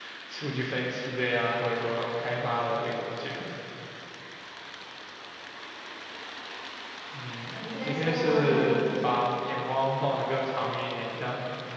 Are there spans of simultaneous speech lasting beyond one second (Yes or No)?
Yes